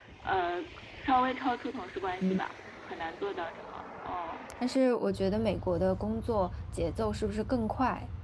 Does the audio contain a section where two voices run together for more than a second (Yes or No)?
No